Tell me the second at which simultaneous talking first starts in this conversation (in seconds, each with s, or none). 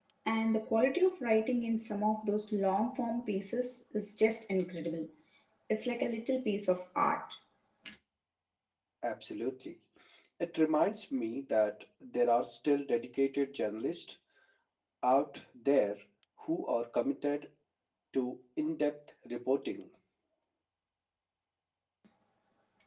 none